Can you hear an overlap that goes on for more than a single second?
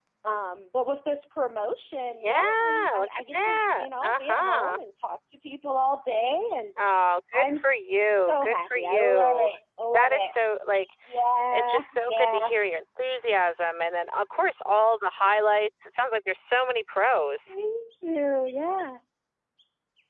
Yes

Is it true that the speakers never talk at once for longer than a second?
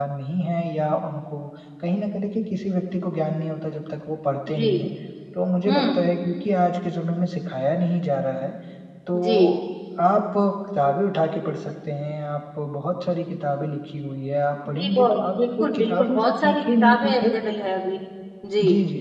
No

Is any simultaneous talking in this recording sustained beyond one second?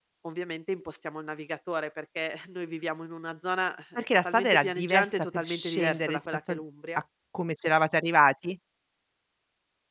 Yes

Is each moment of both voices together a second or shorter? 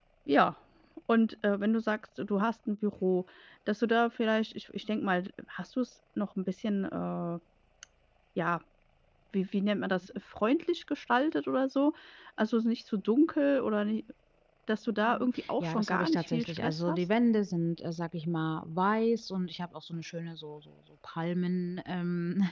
No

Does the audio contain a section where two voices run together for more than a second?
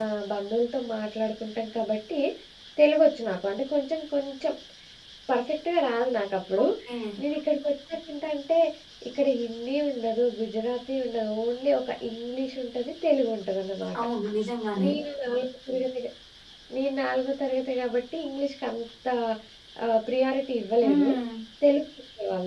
No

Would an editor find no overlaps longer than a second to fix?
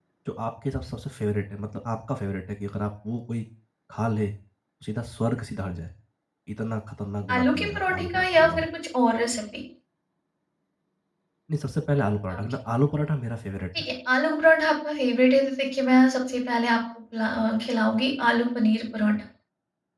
No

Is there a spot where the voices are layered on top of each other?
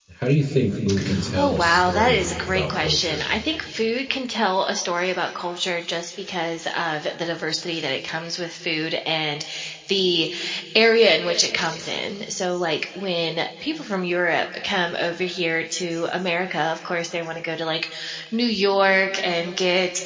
Yes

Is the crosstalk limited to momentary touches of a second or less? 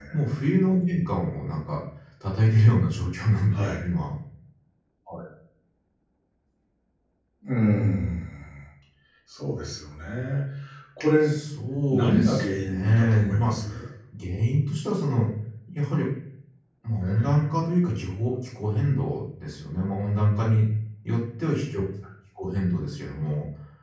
No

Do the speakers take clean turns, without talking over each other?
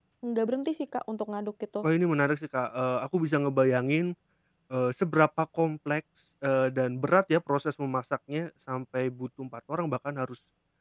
Yes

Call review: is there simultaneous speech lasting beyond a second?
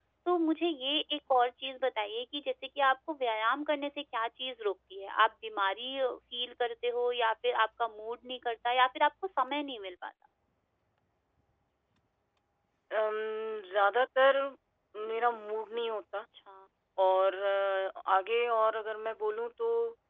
No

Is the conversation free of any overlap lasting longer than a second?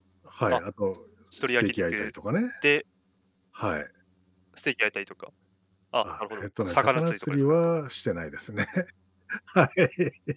No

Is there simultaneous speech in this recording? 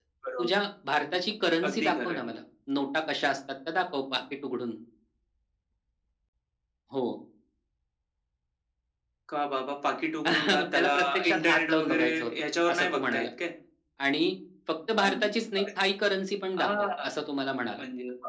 Yes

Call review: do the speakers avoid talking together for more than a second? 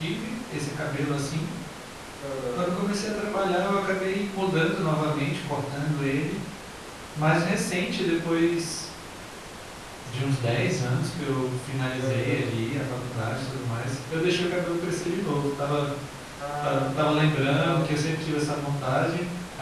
No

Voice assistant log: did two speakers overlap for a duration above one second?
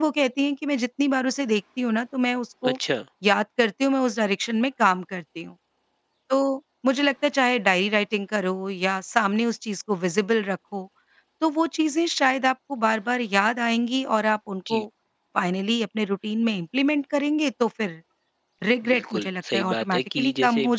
Yes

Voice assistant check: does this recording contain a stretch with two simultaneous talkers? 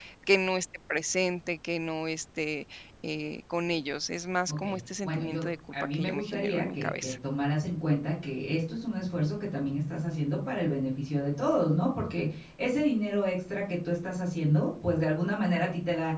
Yes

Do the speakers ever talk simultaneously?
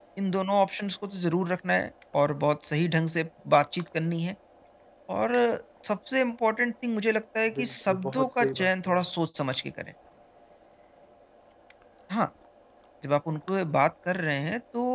Yes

